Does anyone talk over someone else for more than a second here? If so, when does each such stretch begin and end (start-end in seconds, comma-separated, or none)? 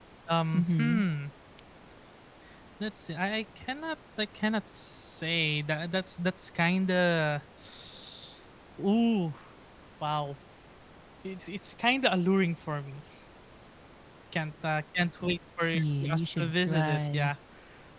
16.1-17.3